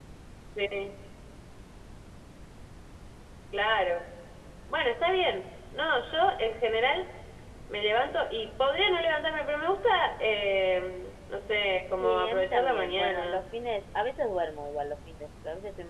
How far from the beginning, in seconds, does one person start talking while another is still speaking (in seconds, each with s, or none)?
12.0 s